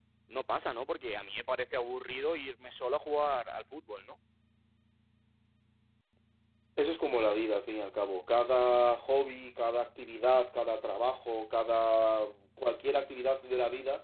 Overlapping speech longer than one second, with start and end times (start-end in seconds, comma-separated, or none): none